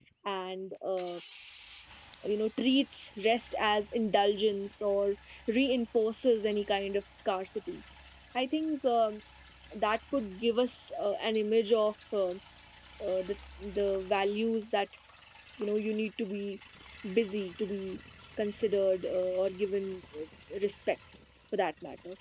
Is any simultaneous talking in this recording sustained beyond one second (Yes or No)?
No